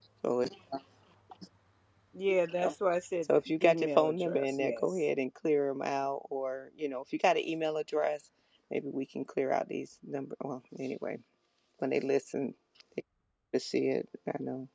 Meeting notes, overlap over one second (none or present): present